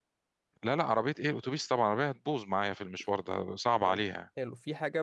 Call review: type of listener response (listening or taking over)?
taking over